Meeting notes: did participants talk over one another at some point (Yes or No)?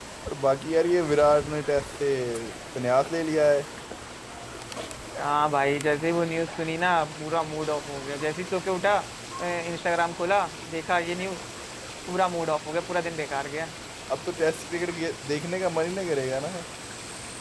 No